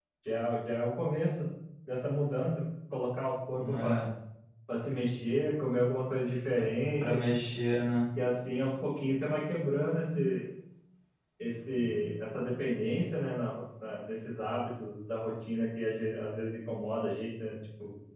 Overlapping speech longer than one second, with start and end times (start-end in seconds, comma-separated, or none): none